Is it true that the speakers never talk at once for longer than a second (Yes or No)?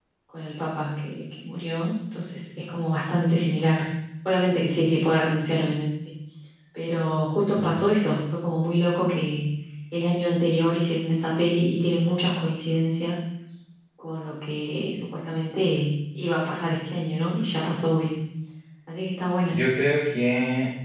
Yes